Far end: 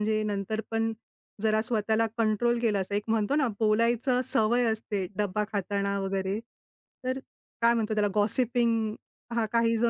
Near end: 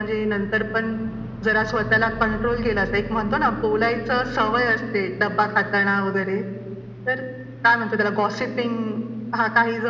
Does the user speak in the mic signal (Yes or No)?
No